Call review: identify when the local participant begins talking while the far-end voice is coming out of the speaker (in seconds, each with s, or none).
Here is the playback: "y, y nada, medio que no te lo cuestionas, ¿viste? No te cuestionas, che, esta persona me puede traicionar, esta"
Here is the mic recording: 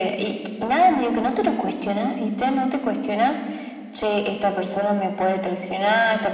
none